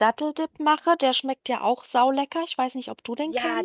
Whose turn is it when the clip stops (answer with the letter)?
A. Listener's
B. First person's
A